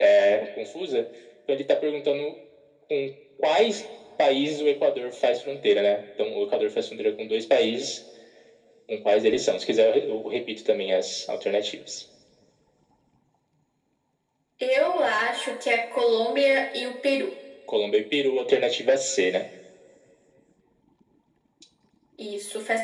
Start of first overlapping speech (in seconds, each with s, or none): none